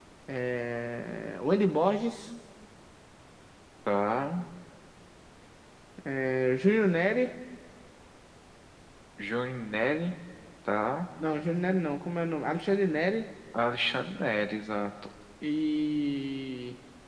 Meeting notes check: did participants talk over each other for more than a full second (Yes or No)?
No